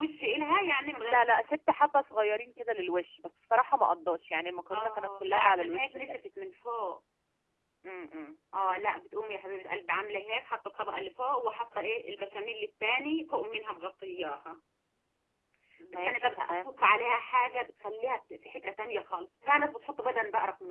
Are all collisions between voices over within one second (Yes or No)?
No